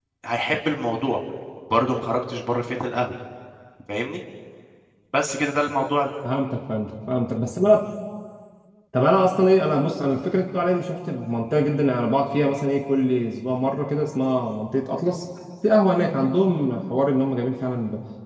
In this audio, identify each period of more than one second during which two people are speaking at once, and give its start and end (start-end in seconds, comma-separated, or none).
none